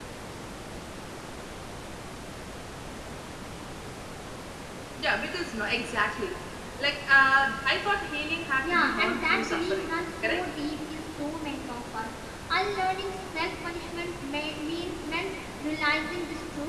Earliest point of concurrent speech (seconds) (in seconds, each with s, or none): 8.6 s